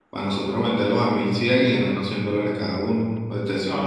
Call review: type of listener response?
taking over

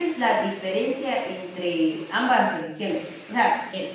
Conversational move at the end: listening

